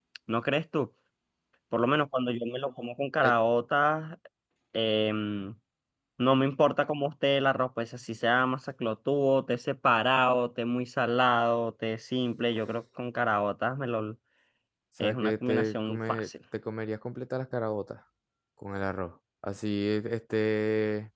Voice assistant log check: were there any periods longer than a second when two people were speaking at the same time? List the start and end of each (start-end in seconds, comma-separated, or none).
15.0-16.3